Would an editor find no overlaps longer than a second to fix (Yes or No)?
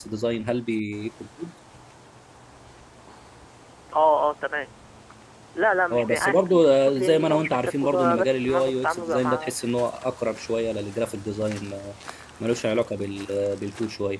No